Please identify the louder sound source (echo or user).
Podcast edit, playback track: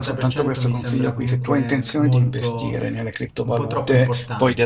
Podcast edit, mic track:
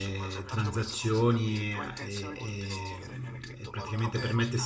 user